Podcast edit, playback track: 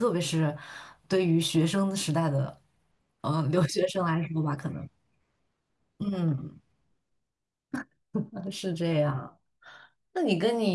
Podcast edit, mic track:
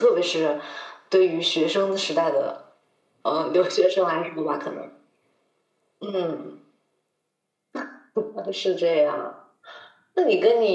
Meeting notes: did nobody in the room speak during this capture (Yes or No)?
Yes